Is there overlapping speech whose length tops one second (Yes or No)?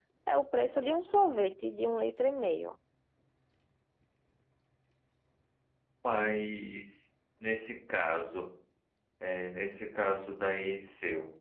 No